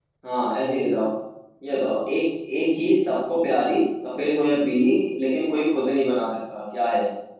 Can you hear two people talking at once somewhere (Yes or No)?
No